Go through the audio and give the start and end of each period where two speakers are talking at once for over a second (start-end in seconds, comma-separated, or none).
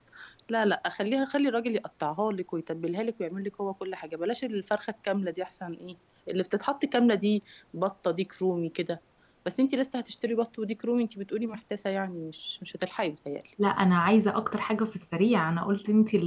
none